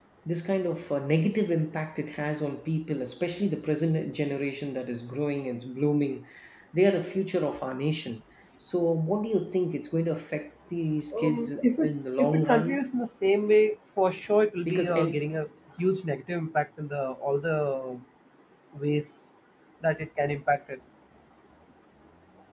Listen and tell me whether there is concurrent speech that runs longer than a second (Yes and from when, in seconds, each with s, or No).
Yes, from 11.2 s